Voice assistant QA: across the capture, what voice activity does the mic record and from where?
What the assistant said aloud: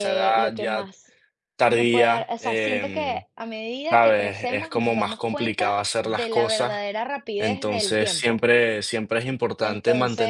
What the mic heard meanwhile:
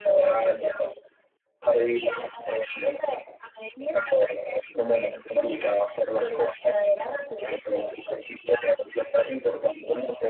echo only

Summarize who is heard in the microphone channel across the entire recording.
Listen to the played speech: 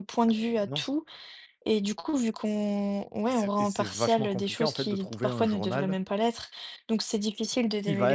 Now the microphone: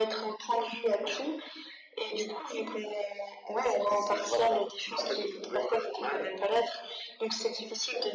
echo only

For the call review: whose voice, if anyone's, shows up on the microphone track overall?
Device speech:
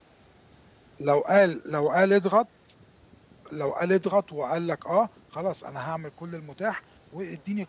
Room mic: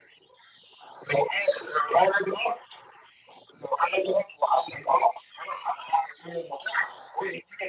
echo only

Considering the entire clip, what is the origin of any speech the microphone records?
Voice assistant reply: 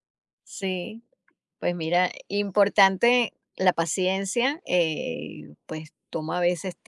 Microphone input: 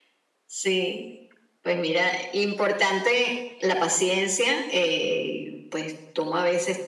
echo only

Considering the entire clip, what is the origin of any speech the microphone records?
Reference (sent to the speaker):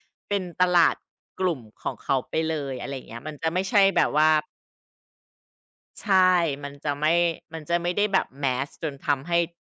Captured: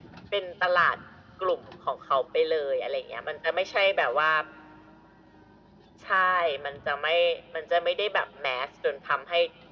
echo only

